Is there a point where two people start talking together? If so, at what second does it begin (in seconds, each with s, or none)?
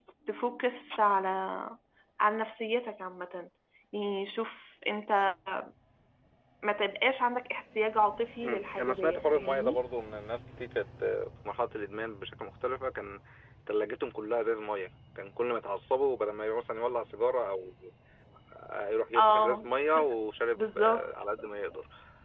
8.4 s